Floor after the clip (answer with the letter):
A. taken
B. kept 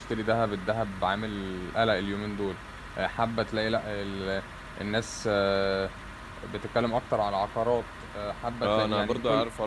A